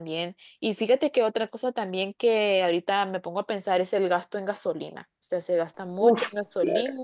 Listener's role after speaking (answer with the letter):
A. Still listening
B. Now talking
A